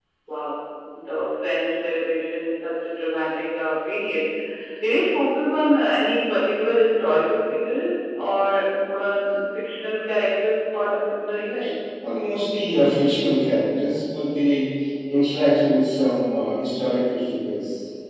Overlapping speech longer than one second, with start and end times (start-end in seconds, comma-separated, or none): none